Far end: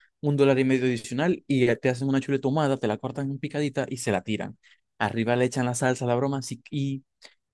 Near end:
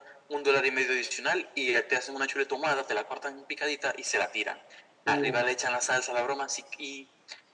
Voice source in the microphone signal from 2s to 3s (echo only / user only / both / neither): echo only